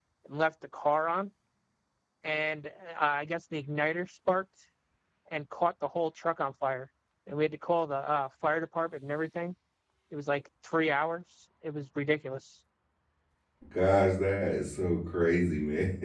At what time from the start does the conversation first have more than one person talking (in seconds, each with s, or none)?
none